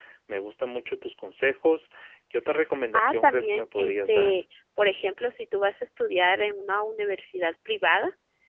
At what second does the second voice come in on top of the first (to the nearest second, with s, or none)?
3 s